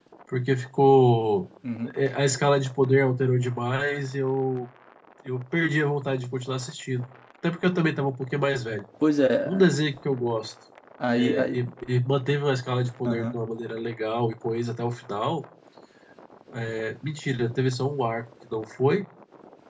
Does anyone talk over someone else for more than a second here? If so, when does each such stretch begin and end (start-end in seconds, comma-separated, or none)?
none